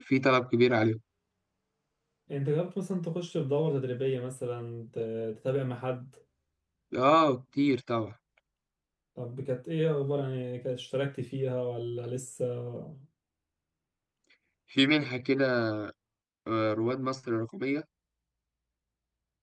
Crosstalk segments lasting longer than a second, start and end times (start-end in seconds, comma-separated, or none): none